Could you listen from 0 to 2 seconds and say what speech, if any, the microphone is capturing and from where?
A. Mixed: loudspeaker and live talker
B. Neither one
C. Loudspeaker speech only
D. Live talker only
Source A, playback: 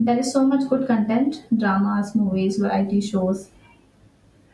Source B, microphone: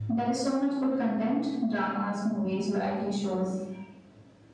C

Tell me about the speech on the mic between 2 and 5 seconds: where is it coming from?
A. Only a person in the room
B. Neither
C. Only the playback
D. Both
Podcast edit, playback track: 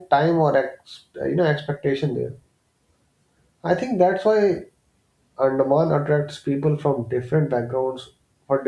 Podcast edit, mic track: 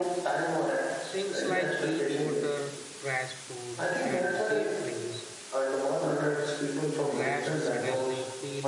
D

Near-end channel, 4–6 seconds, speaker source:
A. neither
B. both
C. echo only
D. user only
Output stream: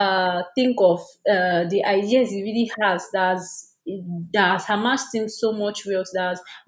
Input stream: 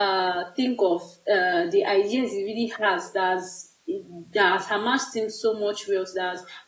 C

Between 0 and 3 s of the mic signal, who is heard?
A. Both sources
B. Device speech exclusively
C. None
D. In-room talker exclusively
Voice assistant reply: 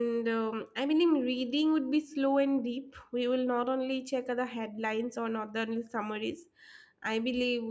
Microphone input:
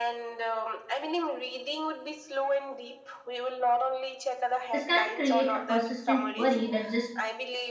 B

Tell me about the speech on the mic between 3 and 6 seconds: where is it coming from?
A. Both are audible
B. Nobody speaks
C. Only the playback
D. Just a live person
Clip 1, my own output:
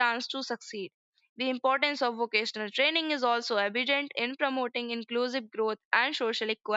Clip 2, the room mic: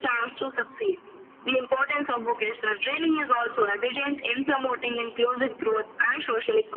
C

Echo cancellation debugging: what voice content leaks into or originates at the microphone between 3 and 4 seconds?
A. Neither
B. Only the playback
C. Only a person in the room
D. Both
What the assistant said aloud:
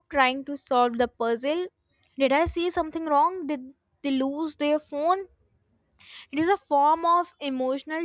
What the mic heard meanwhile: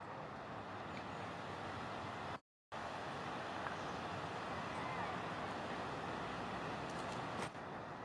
A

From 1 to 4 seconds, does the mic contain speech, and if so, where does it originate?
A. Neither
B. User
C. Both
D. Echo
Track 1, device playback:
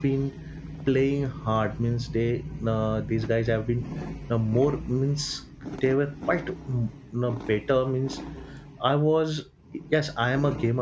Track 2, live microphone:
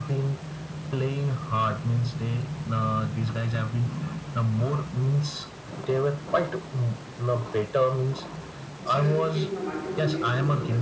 D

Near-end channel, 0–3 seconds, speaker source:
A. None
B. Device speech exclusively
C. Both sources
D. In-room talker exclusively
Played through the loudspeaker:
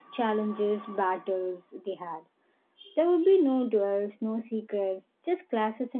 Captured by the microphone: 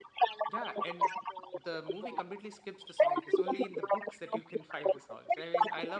C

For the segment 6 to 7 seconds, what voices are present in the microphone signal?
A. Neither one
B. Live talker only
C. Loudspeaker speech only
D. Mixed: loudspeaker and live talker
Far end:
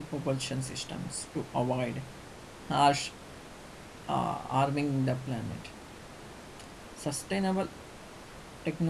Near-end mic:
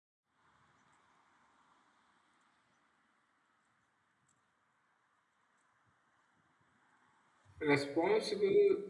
A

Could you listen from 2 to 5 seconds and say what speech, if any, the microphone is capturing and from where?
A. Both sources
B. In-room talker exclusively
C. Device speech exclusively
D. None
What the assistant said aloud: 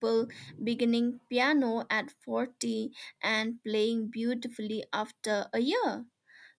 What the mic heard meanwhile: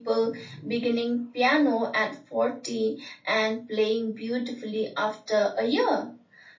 C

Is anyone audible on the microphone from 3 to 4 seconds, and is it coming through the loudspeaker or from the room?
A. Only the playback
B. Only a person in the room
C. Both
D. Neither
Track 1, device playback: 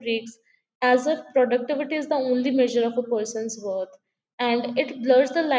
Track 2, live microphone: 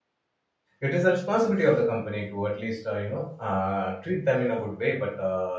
B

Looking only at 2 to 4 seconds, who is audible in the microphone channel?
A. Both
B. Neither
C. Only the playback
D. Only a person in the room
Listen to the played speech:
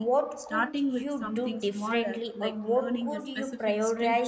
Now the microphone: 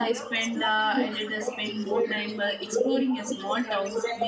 A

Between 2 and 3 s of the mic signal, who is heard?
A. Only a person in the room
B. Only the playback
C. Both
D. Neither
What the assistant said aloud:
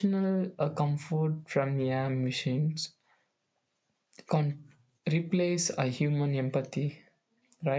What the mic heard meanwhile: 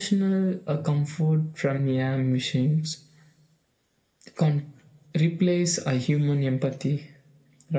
B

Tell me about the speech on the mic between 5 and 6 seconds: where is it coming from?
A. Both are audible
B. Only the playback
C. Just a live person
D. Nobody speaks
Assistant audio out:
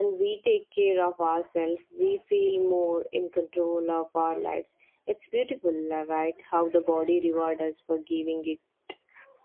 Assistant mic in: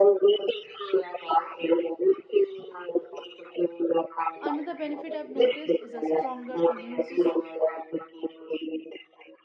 A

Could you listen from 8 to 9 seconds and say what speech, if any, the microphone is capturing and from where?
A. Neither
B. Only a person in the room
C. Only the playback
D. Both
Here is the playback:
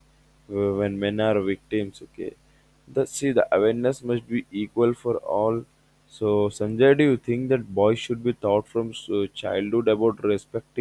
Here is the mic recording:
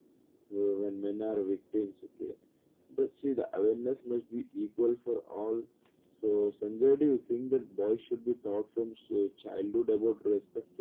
C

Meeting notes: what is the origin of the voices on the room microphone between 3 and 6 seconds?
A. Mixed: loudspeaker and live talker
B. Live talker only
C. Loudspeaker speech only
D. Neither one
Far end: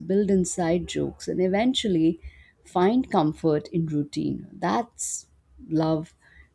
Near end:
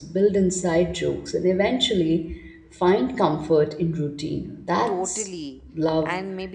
A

